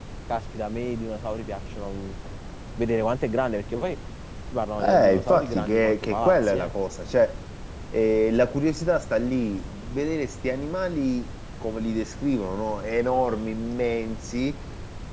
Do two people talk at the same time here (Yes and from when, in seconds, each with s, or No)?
Yes, from 4.8 s